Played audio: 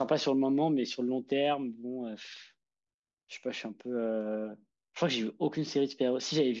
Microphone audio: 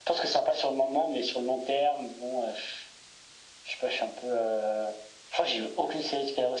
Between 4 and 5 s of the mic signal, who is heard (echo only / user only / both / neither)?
echo only